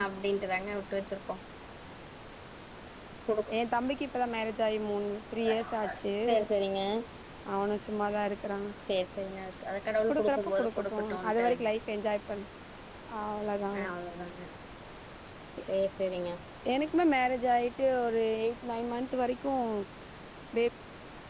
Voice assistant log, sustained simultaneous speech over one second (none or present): present